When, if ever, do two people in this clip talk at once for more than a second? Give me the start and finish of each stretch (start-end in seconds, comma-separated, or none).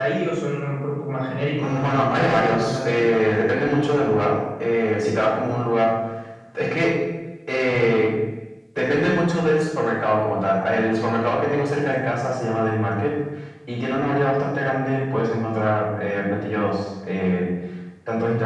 1.6-3.1